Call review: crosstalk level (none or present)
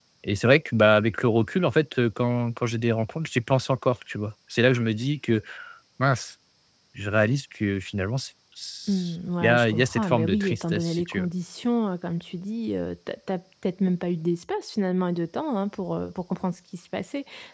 present